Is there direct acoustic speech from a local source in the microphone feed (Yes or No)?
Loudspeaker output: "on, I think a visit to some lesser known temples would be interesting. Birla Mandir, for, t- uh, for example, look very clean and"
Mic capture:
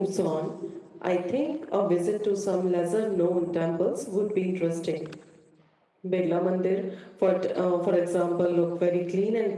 No